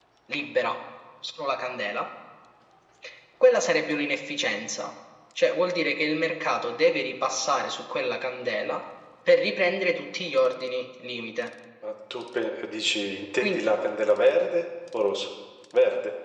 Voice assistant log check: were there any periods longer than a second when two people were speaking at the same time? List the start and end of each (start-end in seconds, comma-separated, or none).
none